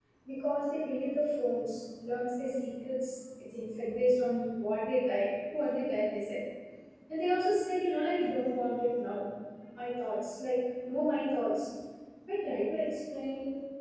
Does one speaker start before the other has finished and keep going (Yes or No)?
No